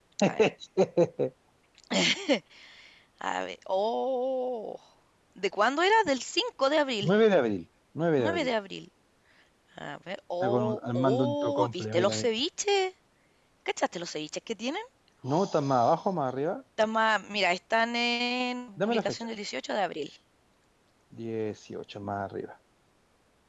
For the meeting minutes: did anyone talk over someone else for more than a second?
Yes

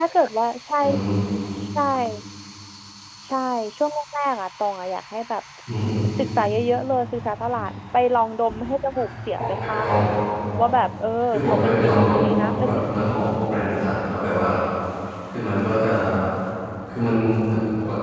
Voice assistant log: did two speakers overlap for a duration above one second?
Yes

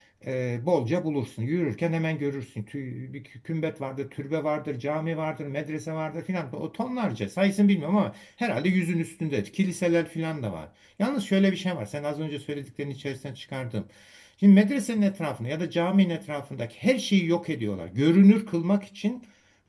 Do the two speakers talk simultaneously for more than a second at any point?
No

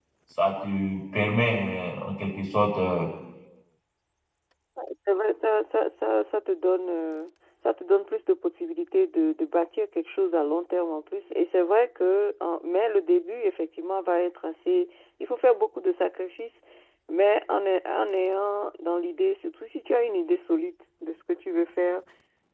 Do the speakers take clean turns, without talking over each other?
Yes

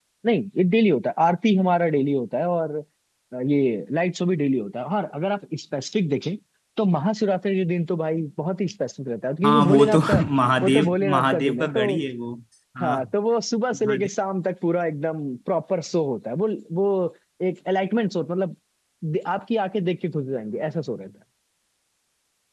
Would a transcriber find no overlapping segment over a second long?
No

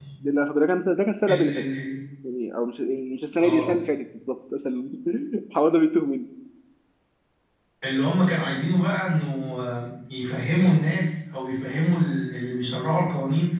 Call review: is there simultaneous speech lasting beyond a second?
No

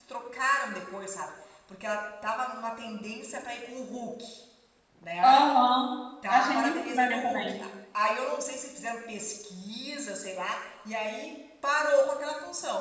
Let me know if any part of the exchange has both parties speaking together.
Yes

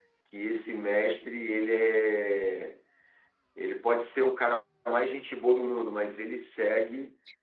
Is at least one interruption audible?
No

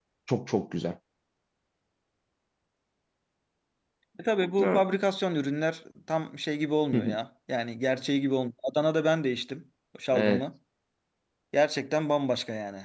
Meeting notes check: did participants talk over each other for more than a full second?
No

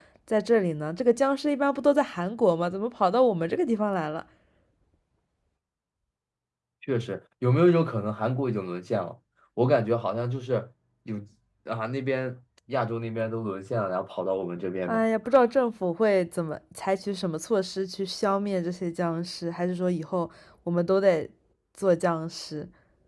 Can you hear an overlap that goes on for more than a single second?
No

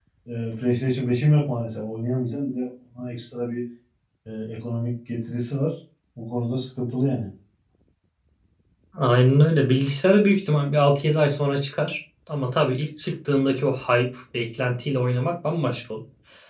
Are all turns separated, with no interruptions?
Yes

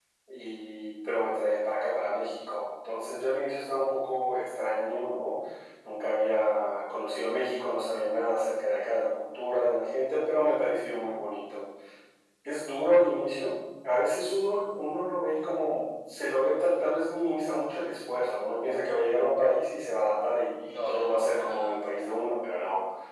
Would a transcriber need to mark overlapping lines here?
Yes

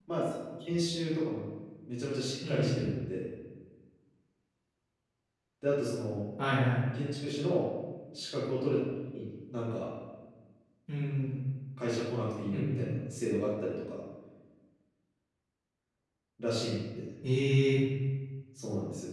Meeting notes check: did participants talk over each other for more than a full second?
No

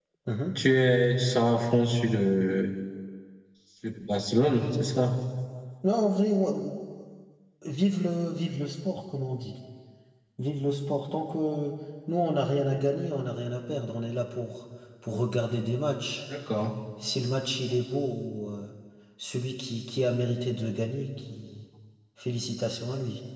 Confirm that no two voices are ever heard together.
Yes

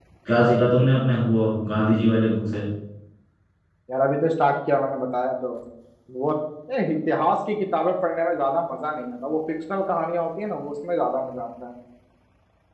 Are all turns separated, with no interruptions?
Yes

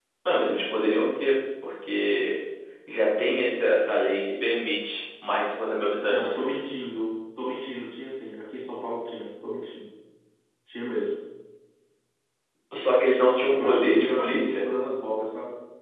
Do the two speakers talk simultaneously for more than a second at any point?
Yes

